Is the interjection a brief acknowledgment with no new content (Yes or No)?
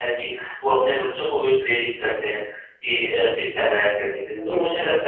Yes